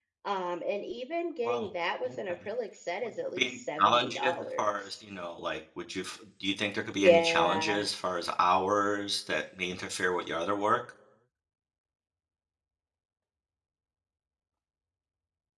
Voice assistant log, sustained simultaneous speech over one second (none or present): present